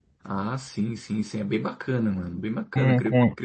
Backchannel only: No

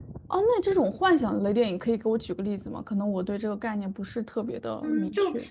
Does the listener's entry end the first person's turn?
Yes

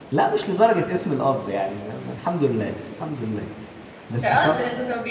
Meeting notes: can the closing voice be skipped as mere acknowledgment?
No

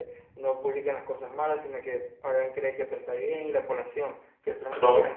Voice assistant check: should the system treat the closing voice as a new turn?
Yes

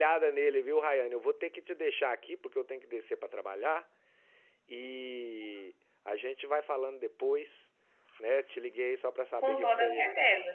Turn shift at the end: Yes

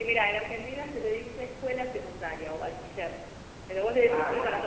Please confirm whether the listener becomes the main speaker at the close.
Yes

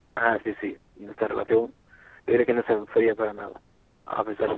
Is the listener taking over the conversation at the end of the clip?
No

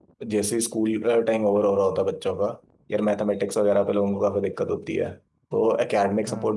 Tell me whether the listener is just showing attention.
Yes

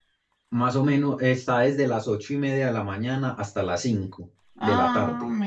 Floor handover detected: Yes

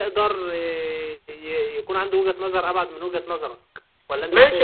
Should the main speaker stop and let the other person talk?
Yes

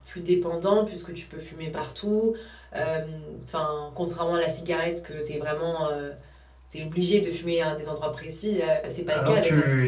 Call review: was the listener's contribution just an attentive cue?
No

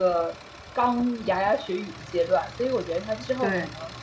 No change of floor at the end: Yes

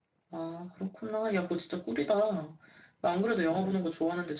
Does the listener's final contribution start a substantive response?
No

